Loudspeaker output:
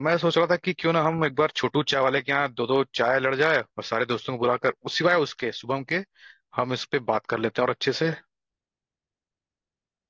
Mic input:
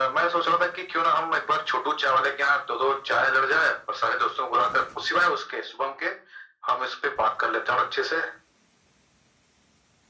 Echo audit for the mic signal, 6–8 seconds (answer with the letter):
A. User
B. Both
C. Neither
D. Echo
D